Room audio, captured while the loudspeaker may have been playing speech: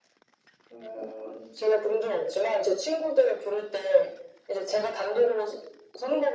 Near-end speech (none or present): none